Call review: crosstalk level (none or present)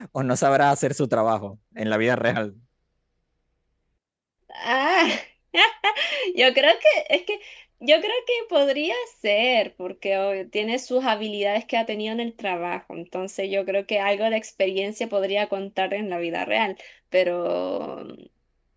none